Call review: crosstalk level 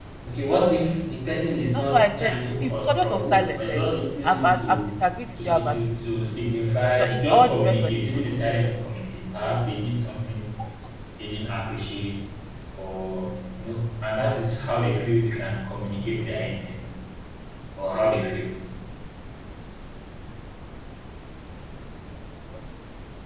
present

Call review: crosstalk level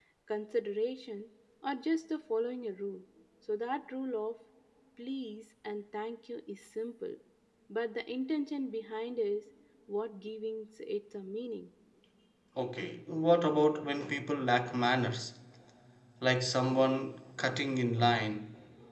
none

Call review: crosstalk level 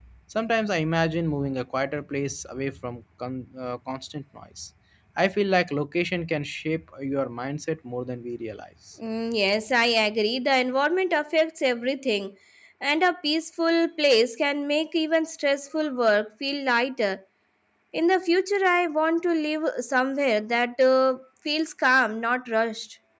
none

